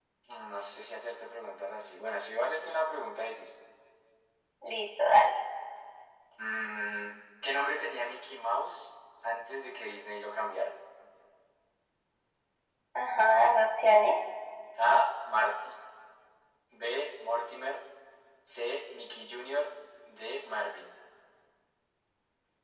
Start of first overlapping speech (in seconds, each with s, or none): none